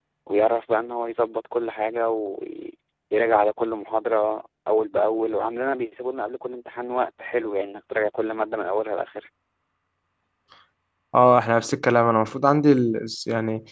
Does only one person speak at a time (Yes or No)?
Yes